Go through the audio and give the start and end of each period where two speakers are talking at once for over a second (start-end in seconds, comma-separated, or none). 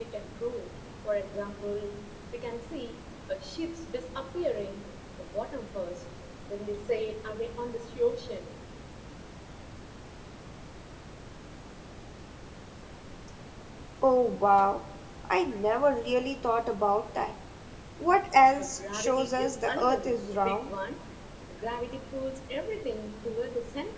18.6-20.7